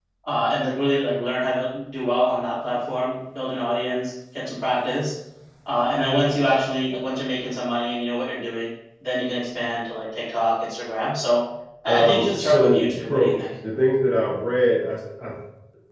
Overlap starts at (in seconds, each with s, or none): 11.9 s